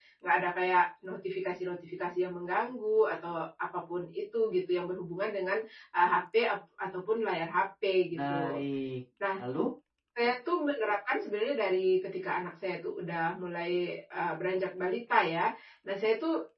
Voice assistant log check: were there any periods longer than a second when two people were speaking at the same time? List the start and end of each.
none

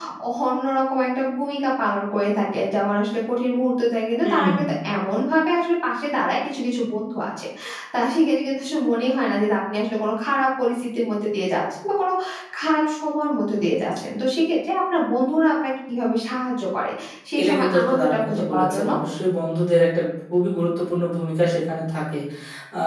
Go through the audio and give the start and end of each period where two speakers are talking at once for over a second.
17.4-18.9

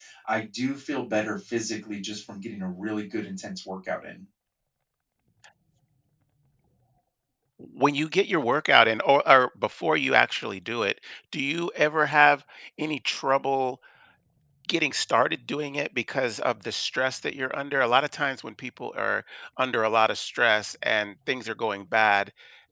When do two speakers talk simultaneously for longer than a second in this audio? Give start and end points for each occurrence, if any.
none

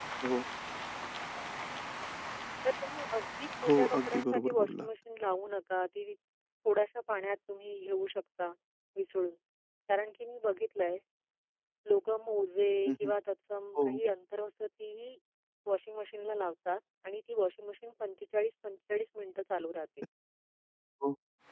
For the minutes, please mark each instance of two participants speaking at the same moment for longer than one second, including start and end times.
3.7-4.9

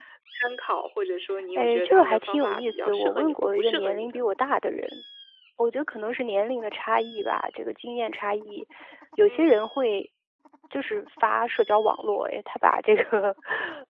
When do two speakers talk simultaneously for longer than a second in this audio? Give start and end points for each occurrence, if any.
1.6-4.3

